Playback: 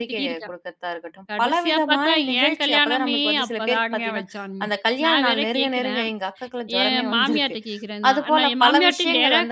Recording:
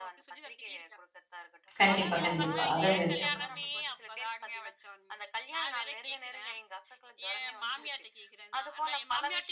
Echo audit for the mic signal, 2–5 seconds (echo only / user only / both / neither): both